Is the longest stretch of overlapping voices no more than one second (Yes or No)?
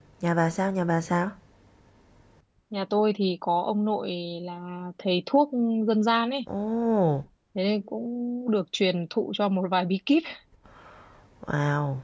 Yes